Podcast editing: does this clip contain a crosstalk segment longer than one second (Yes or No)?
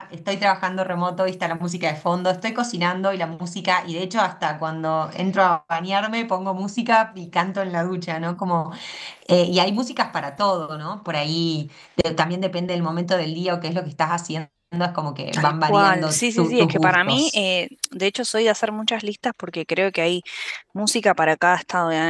Yes